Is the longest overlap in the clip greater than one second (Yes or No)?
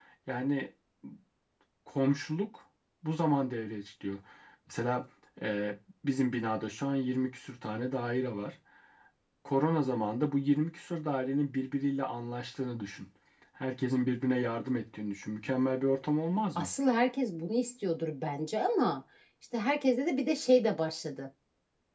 No